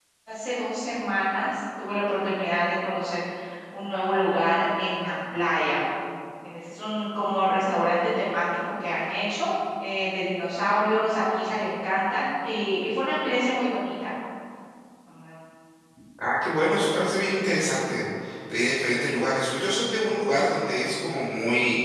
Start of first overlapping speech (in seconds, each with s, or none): none